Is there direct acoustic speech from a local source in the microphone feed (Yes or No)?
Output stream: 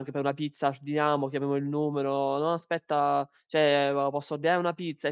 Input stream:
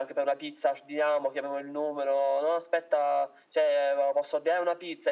No